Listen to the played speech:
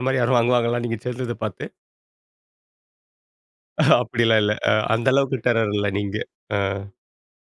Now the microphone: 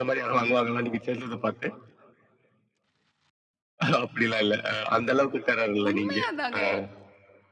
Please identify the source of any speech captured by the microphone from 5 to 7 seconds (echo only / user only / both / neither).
both